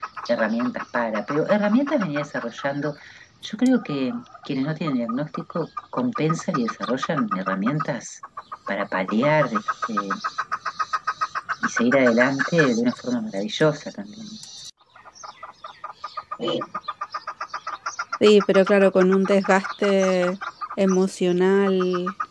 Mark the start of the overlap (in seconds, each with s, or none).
none